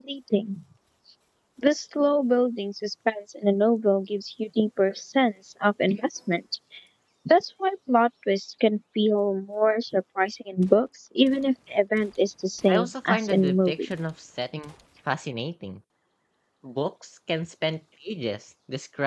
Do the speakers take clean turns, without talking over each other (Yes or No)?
No